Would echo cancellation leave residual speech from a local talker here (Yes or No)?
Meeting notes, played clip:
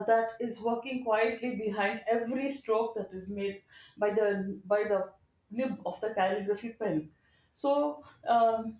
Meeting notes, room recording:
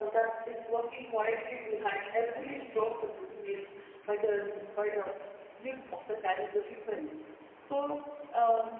No